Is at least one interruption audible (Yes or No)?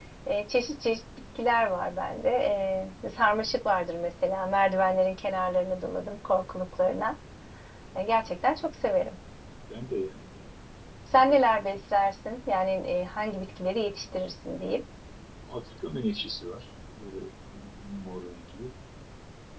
No